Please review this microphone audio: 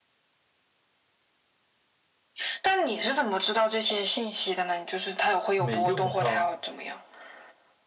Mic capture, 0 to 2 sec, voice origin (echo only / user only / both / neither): neither